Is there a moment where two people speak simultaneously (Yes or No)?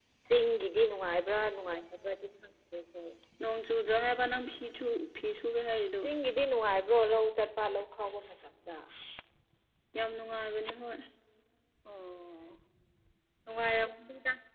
No